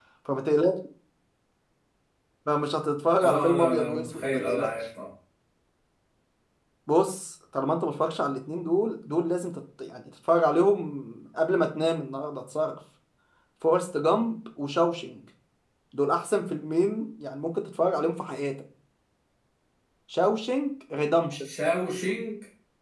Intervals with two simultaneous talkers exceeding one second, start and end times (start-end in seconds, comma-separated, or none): 3.2-4.7